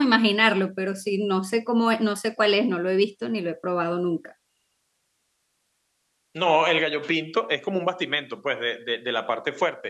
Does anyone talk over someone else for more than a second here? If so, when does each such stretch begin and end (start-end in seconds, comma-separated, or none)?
none